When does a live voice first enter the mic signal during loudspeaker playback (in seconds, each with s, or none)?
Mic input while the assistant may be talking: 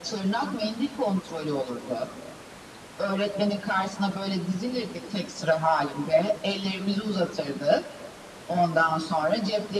none